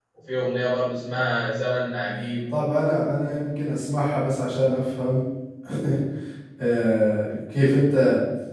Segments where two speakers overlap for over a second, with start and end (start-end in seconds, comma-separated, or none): none